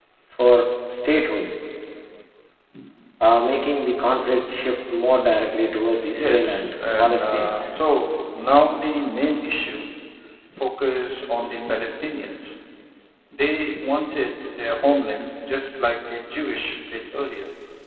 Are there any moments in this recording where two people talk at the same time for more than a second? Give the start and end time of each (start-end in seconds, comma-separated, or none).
6.2-7.7